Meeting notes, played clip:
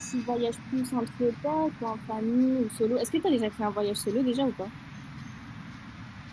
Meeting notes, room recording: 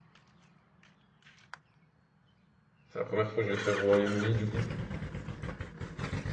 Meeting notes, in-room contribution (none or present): present